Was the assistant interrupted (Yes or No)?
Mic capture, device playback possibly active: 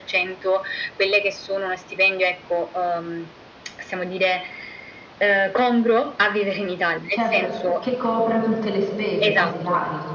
Yes